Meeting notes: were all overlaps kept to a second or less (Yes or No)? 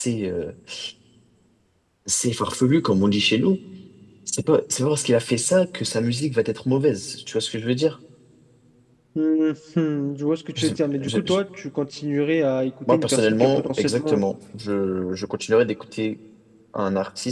No